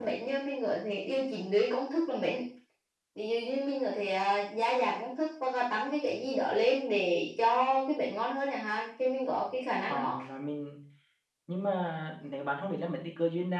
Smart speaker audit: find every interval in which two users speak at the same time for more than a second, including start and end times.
none

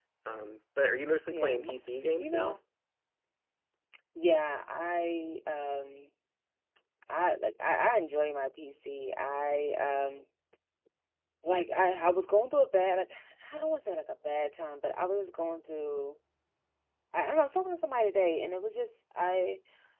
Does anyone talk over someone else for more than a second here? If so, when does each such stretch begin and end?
1.3-2.5

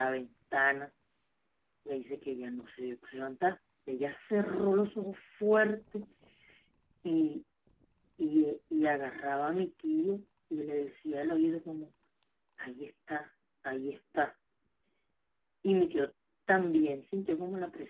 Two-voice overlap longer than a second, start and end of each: none

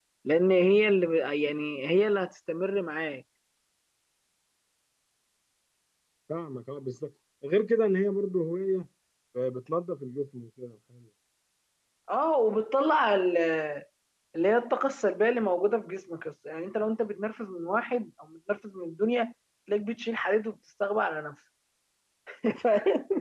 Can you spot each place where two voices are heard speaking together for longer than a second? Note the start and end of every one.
none

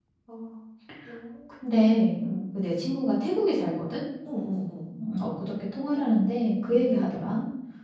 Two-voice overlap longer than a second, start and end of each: none

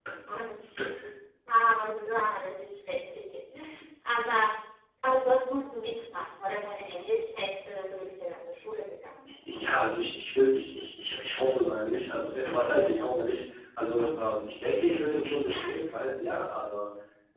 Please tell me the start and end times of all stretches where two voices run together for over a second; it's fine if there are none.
none

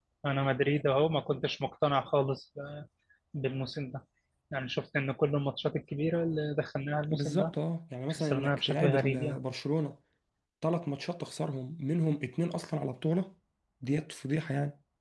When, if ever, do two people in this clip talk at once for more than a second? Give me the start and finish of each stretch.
8.1-9.4

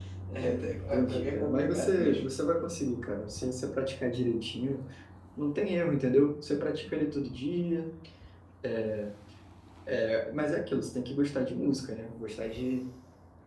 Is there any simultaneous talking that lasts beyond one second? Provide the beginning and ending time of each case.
0.9-2.2

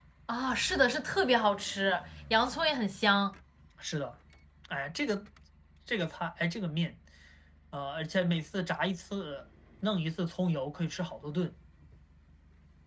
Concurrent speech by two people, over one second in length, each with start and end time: none

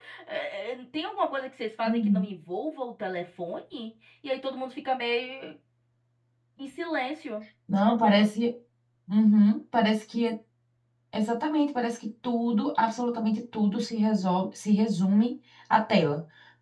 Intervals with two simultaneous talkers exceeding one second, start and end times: none

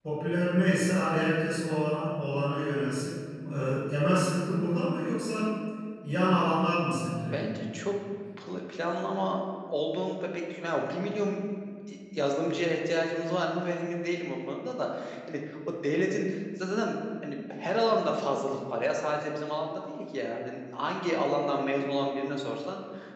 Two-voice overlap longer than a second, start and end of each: none

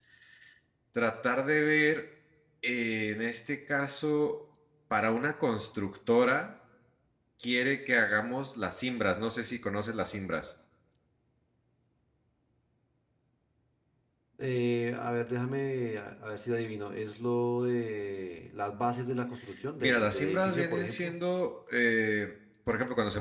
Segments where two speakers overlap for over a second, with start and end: 19.8-21.1

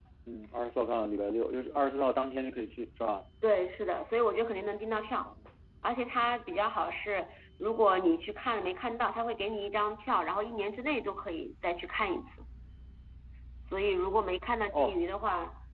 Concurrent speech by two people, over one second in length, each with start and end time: none

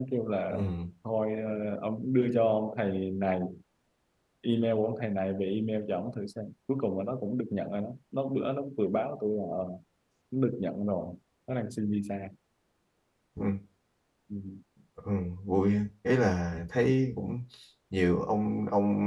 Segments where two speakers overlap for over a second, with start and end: none

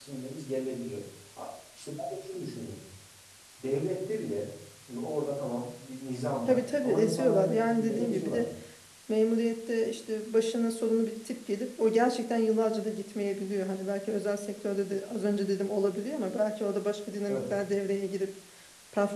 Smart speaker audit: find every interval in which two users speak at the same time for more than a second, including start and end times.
6.5-8.4

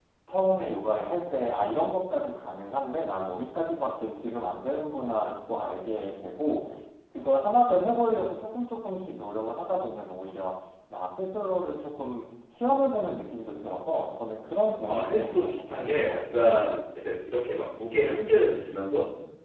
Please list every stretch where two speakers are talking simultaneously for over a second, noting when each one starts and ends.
14.8-16.5

